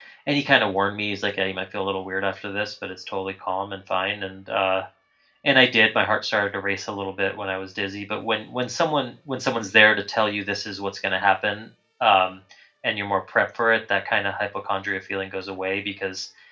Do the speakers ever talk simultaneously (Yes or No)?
No